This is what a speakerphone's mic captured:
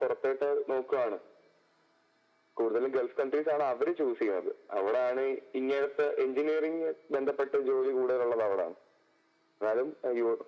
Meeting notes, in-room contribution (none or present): none